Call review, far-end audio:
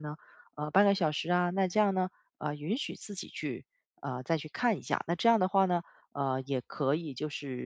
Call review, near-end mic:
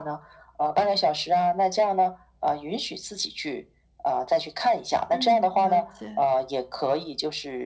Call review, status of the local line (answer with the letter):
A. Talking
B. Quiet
A